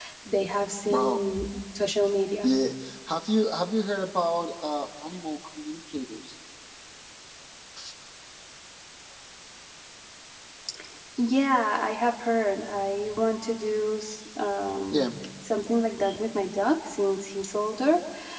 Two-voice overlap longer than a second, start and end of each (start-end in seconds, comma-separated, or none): none